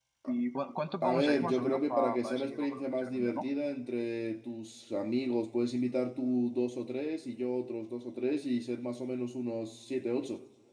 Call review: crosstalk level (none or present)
present